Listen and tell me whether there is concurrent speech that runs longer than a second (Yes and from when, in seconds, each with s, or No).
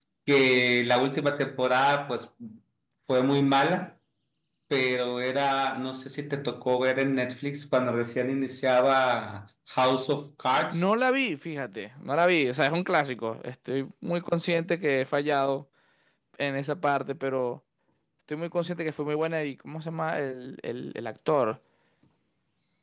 No